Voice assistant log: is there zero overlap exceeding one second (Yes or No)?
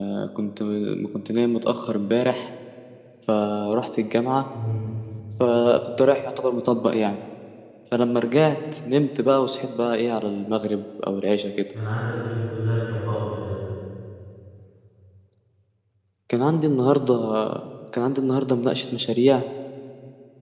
Yes